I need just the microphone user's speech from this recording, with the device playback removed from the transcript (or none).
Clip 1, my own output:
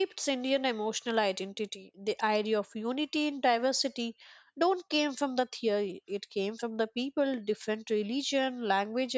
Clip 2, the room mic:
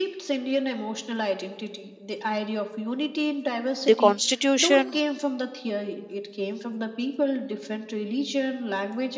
The Constitution